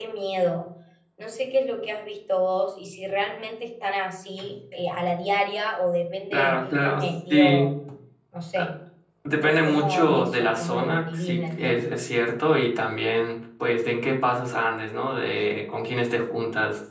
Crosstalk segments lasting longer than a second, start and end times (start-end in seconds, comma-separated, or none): 6.3-7.7, 9.4-11.7